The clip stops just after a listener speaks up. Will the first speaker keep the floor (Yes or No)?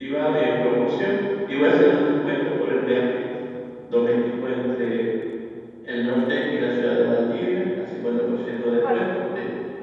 Yes